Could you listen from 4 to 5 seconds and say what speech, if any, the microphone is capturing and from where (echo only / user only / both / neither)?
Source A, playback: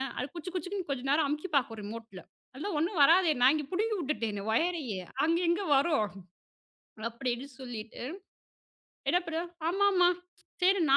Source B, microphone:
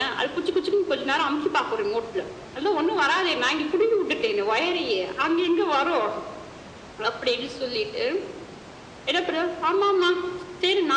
echo only